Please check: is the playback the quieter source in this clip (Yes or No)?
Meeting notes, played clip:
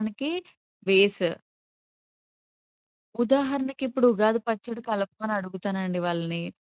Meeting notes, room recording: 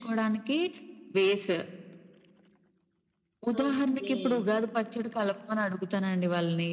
No